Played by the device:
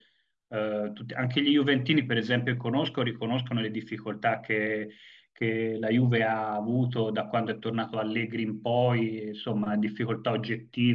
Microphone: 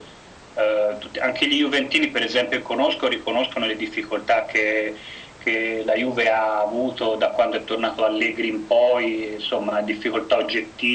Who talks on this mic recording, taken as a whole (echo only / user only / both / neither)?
echo only